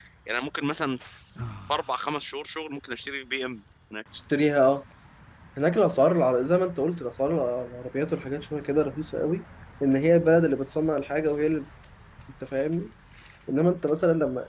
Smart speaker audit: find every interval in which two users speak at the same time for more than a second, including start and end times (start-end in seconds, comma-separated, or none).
none